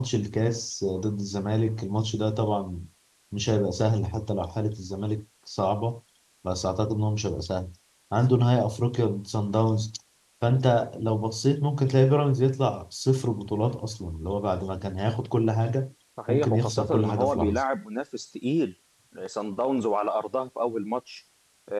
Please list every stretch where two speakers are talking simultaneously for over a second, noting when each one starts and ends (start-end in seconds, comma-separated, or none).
16.3-17.6